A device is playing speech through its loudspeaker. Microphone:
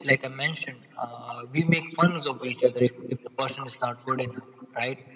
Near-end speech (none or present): none